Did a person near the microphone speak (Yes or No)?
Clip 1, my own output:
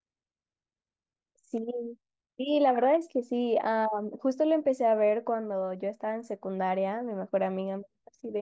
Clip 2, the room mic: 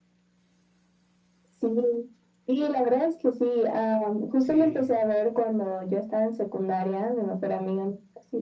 Yes